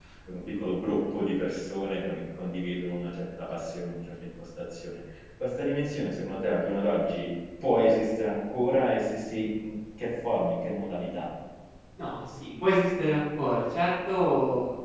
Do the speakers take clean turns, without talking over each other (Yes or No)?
Yes